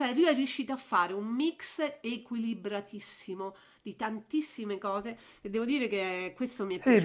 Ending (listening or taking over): taking over